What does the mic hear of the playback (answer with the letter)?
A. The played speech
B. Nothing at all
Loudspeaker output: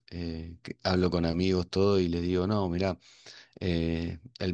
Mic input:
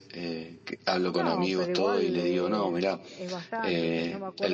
A